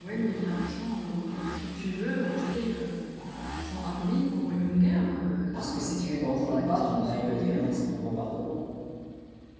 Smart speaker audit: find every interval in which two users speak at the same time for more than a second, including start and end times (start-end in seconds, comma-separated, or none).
5.5-7.8